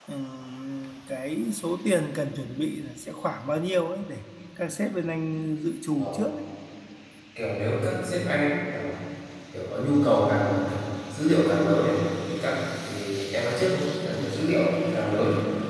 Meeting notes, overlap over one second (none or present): none